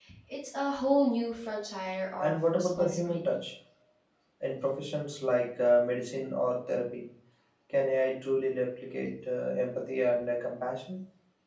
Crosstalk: present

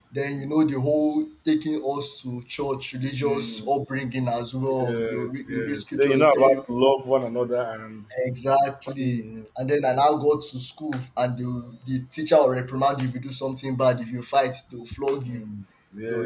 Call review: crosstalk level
present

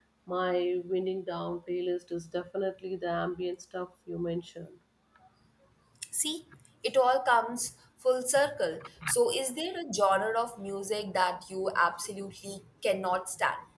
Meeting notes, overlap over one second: none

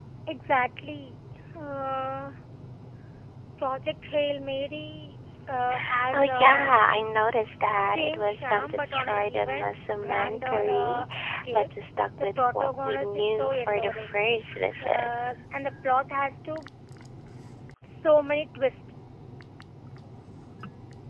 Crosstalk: present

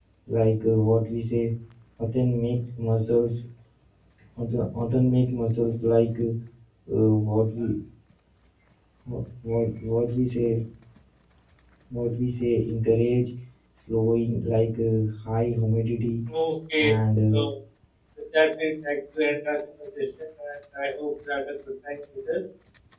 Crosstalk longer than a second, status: none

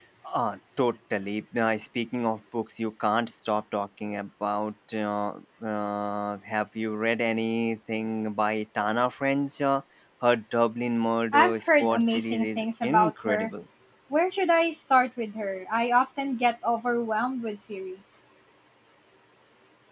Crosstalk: present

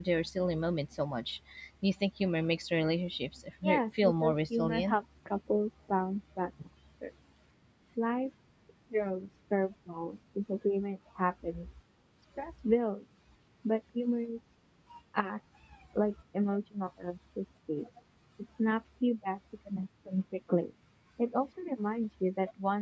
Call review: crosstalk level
present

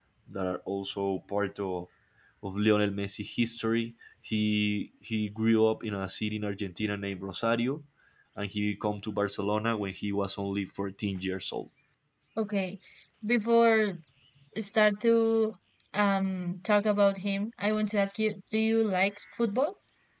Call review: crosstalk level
none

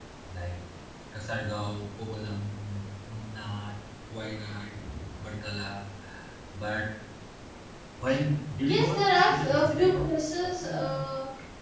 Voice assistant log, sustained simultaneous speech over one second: present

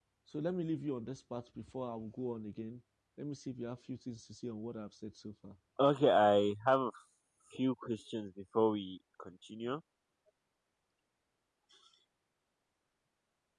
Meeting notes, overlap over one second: none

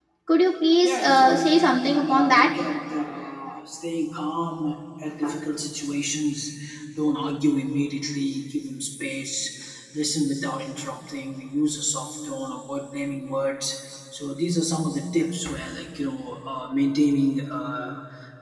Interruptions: present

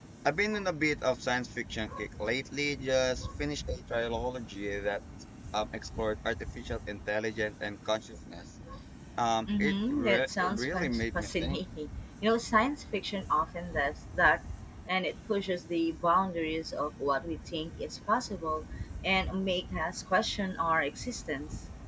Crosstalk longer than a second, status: present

